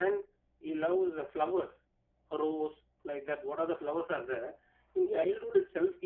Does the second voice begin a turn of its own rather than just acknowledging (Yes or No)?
No